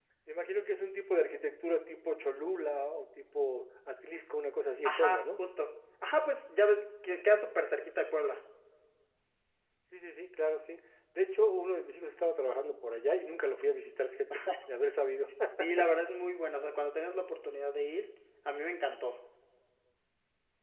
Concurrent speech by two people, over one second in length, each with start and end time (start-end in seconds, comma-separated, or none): none